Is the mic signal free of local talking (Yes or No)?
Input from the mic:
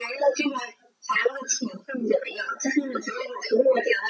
Yes